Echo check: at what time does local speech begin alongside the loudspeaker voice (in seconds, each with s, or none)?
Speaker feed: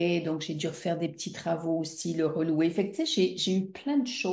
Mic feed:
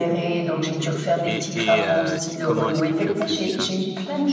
1.2 s